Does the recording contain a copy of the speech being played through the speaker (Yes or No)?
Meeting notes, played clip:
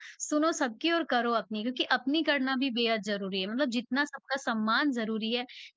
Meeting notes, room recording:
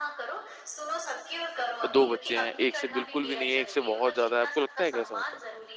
Yes